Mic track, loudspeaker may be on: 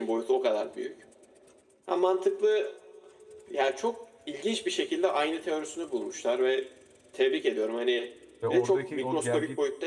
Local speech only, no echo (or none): Ve oradaki o gelgit